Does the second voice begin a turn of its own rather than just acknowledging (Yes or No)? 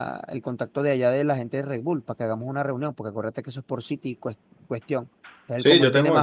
Yes